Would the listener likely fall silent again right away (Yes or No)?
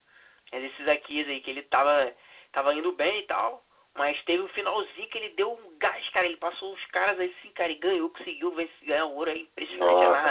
No